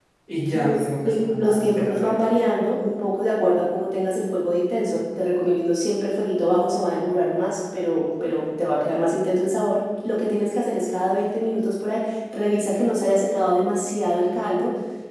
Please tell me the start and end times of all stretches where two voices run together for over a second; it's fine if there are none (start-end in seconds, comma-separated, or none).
0.5-2.3